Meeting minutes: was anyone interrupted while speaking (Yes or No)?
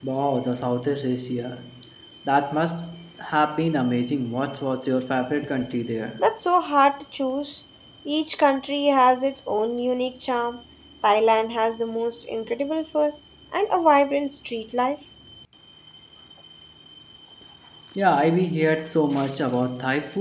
No